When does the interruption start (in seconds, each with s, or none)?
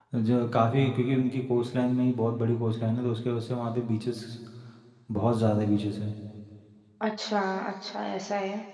none